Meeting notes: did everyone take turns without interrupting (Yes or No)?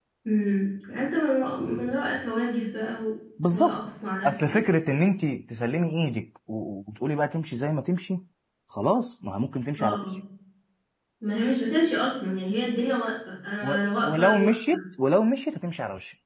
No